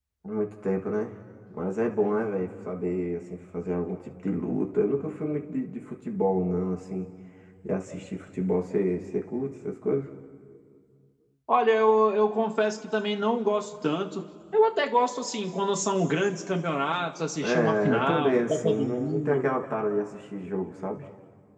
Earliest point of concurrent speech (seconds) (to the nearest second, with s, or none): 17 s